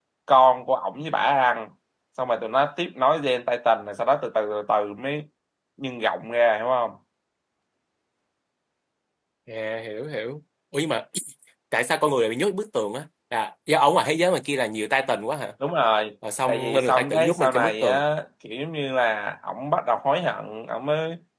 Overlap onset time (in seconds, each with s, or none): 16.5 s